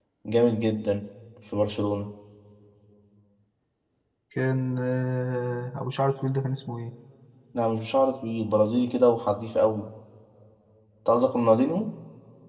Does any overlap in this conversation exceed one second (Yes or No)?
No